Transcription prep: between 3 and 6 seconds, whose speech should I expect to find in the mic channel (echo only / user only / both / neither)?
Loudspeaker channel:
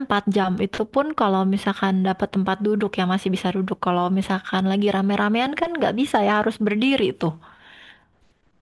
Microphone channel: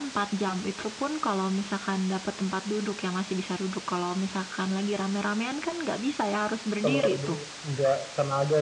echo only